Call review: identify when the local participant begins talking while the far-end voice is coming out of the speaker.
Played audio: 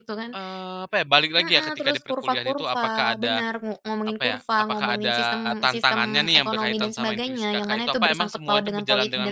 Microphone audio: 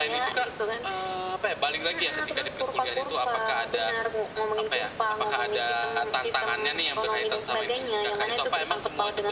none

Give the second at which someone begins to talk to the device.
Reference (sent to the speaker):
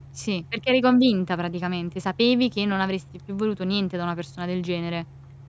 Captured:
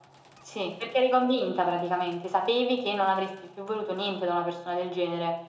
none

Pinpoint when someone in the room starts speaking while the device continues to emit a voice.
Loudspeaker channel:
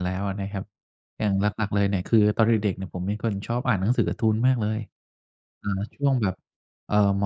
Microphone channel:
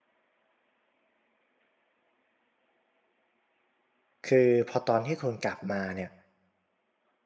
4.2 s

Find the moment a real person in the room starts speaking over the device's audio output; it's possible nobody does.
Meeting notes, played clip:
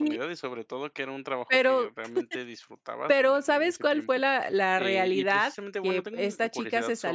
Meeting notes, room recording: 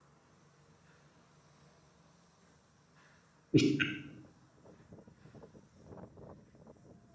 3.5 s

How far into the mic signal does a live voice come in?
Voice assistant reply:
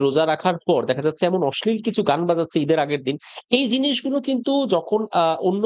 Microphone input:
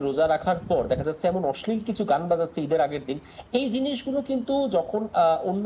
none

